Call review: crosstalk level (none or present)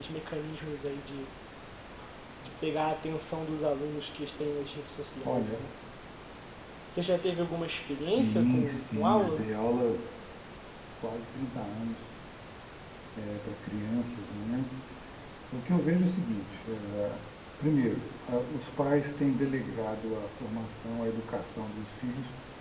present